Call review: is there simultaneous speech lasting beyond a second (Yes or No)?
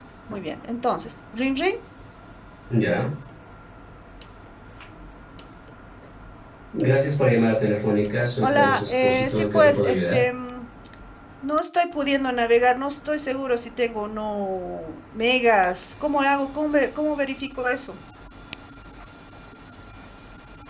Yes